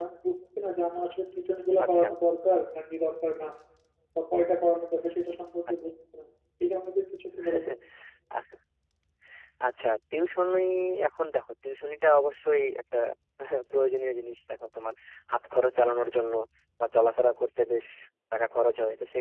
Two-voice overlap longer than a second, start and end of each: none

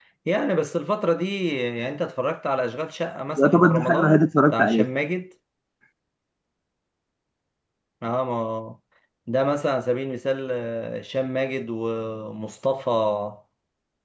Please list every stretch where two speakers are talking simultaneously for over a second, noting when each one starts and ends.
3.4-4.9

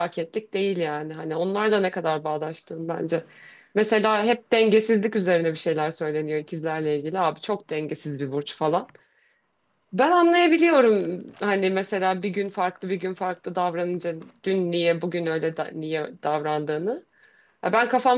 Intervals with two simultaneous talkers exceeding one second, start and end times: none

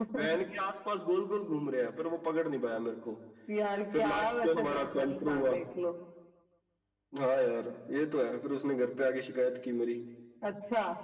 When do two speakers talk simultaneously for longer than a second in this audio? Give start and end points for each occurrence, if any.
4.0-5.5

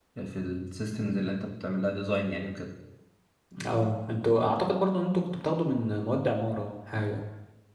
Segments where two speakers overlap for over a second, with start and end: none

